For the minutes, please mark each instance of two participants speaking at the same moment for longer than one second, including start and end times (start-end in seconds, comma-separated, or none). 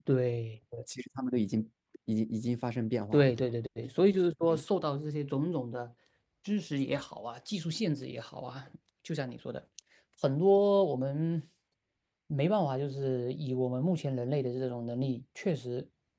none